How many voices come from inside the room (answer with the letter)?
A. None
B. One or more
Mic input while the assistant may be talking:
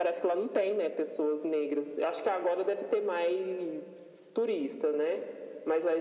A